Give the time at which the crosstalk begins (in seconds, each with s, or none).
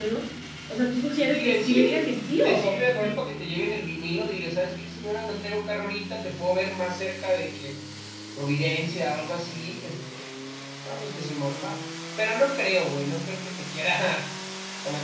1.1 s